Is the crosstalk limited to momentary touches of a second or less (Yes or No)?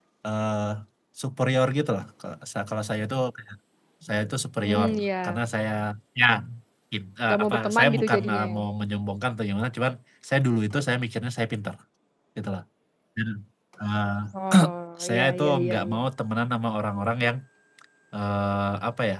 No